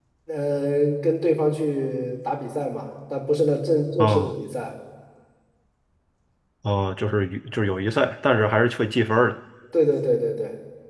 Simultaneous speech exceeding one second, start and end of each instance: none

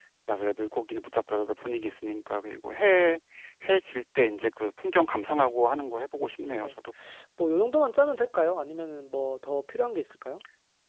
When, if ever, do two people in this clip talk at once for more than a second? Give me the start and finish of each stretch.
none

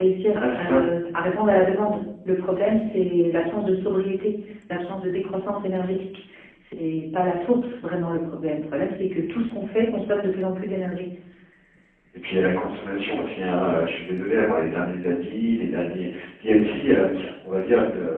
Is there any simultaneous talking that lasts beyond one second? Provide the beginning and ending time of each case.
none

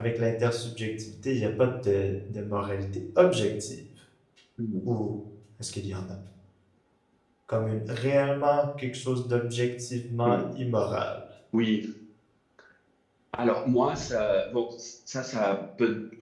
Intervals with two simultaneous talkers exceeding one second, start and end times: none

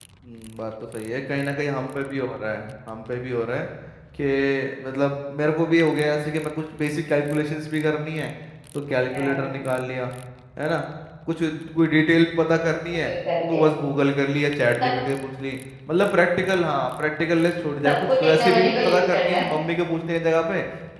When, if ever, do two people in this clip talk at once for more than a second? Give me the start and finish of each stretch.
17.9-19.5

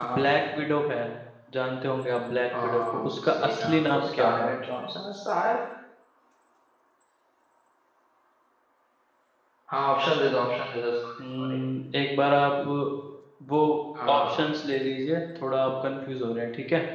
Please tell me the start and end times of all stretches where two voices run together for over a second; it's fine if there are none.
2.5-4.5

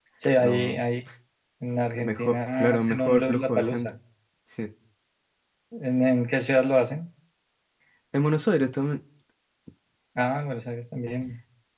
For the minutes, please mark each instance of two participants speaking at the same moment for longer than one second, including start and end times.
2.0-3.9

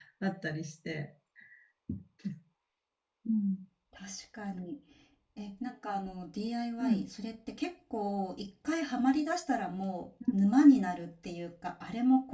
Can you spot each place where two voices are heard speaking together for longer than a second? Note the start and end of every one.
none

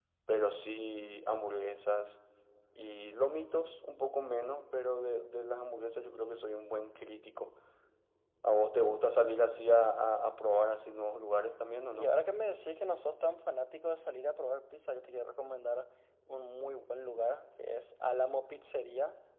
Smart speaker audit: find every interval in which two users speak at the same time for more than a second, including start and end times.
none

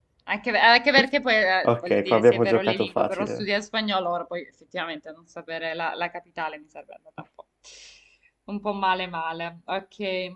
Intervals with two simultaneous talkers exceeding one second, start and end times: 1.6-3.4

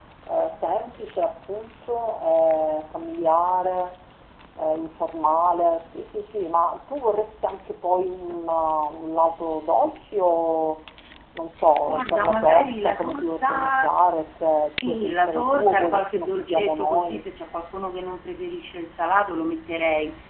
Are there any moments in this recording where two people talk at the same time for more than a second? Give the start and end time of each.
11.8-13.9, 14.9-17.2

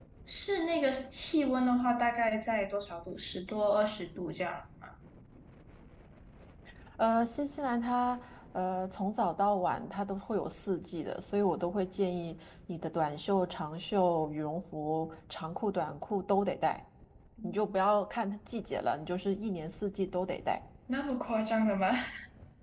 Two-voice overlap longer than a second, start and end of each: none

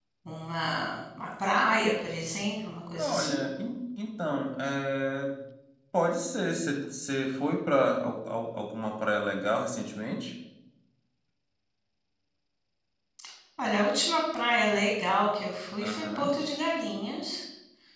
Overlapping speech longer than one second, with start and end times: none

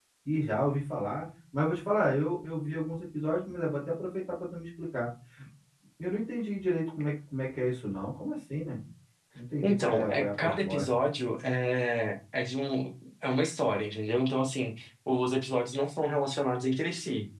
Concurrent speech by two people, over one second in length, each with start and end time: 9.6-10.9

